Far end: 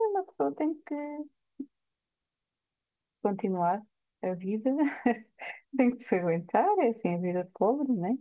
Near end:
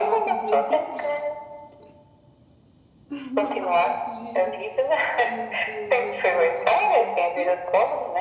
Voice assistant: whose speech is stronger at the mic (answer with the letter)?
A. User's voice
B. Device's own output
B